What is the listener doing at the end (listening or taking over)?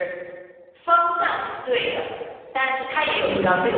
listening